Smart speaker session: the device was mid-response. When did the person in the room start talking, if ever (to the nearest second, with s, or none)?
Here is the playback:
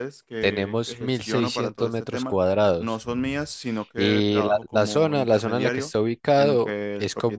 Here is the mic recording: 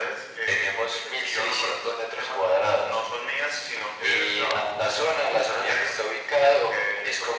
none